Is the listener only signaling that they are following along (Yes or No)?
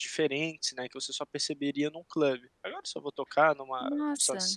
Yes